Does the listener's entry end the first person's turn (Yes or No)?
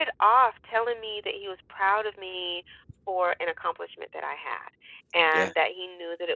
No